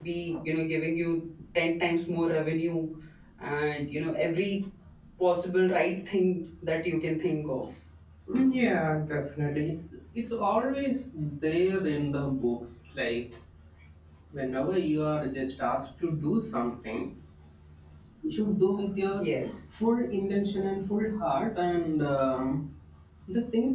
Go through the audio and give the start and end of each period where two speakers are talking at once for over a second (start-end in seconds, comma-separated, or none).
none